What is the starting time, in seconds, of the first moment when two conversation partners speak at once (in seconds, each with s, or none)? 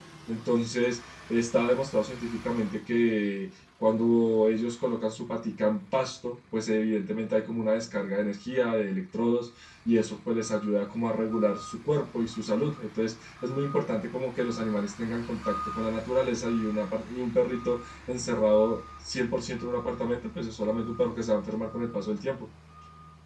none